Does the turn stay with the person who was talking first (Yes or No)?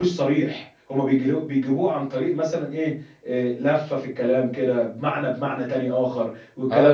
No